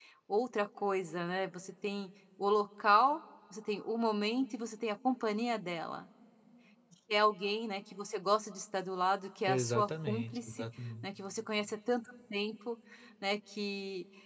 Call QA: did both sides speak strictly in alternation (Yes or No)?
No